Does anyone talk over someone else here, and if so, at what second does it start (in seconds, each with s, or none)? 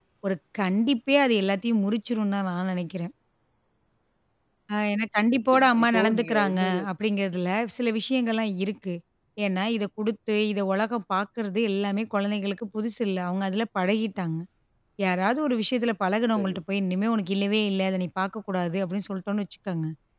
5.4 s